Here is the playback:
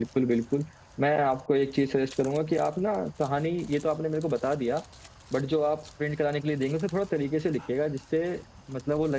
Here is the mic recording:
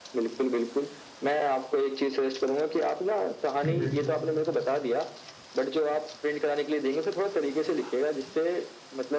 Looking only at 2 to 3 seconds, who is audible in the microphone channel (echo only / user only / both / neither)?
echo only